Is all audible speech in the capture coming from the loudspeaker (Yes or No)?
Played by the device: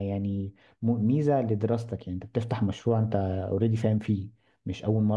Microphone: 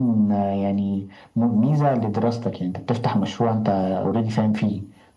Yes